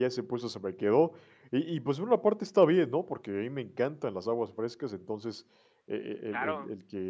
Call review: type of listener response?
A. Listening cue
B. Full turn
A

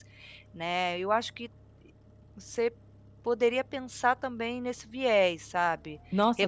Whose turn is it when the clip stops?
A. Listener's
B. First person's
A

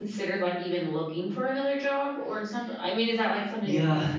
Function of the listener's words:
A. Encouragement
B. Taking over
B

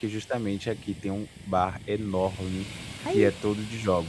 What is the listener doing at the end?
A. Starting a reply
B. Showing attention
B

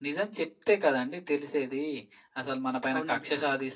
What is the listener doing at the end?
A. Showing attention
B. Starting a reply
A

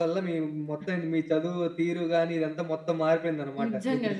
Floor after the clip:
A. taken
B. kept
A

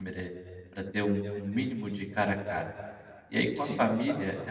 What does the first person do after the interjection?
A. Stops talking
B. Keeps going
B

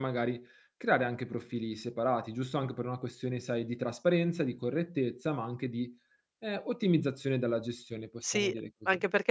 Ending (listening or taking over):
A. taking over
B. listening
A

